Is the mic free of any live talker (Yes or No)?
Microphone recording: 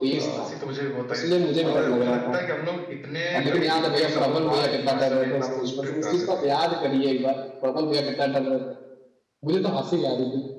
No